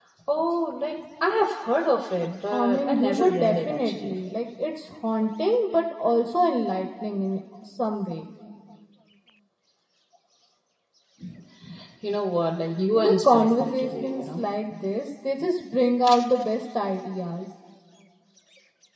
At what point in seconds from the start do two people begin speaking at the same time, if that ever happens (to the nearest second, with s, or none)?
3 s